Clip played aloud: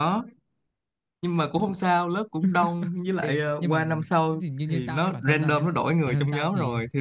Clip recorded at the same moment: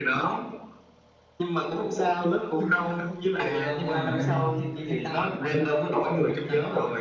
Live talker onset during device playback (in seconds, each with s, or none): 3.4 s